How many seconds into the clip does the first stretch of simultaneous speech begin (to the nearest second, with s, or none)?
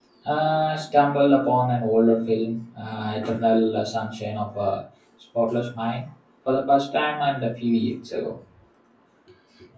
none